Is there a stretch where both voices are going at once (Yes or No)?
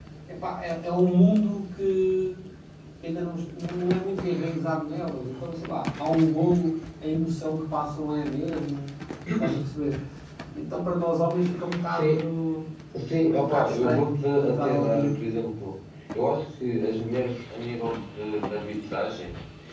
Yes